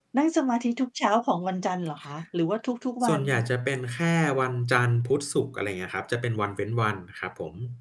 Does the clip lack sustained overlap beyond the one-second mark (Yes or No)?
Yes